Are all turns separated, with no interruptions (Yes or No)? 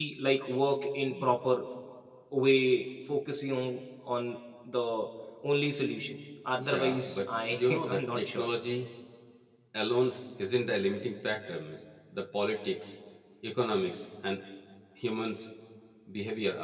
No